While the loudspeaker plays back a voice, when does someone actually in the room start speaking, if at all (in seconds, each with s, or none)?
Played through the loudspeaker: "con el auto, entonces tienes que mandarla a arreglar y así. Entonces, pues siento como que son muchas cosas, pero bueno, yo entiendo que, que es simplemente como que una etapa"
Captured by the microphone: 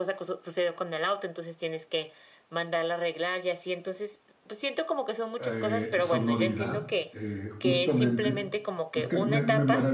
5.4 s